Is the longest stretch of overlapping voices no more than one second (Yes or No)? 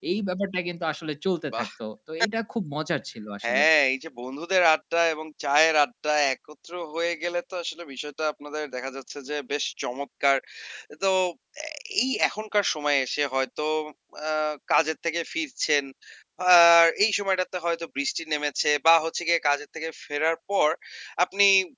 Yes